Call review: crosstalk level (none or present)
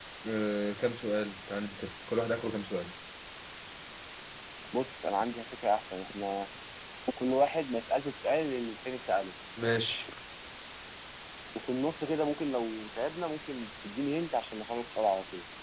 none